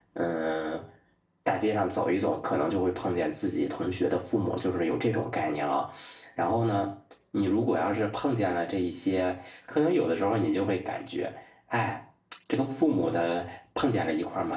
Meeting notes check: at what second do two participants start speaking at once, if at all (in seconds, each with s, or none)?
none